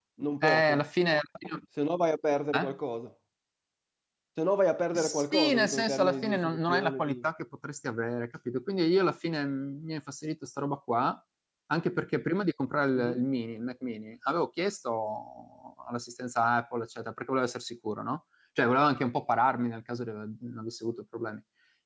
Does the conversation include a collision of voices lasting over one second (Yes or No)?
Yes